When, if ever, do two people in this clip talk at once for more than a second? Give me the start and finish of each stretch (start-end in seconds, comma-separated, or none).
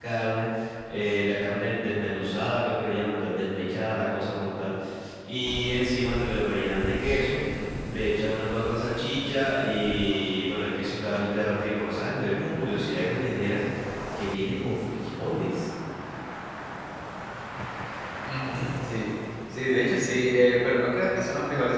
none